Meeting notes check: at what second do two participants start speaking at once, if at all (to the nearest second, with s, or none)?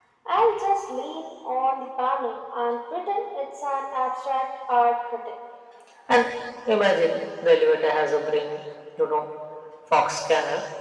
none